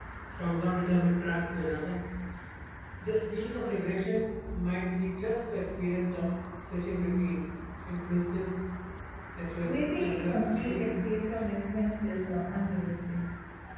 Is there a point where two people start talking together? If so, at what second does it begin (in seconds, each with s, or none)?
9.6 s